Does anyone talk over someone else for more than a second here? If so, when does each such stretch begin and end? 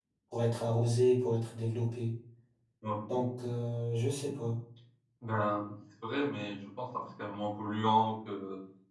none

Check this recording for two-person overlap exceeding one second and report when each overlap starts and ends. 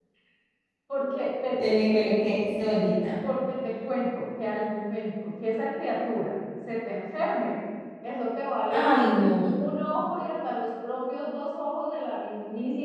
none

